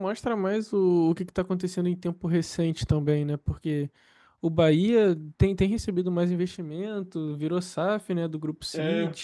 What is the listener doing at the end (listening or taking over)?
taking over